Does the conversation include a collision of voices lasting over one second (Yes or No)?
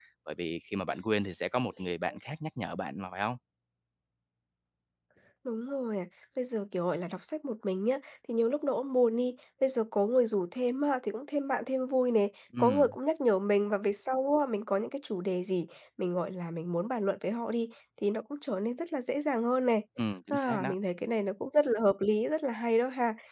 No